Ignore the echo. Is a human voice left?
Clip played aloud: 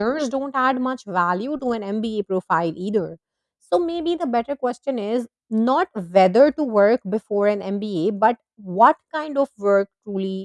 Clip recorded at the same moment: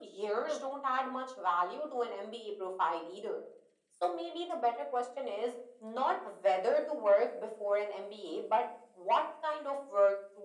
No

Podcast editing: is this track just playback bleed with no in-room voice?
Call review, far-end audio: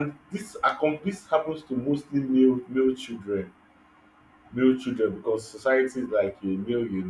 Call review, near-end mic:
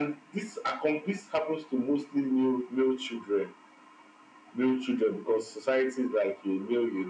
Yes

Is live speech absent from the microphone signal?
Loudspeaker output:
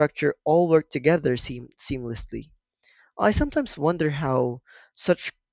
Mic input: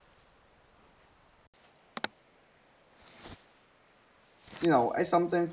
No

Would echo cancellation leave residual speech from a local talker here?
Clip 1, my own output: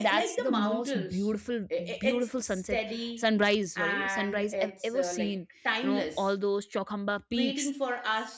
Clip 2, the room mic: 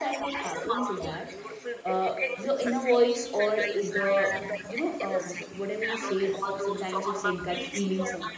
Yes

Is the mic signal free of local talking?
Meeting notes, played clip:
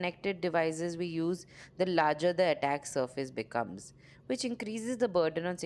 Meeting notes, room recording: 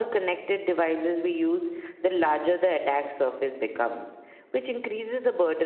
Yes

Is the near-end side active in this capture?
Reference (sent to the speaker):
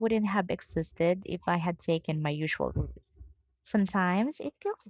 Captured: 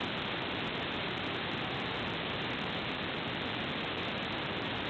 No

